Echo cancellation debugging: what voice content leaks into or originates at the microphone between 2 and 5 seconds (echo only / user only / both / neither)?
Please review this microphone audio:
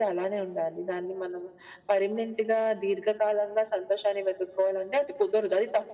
echo only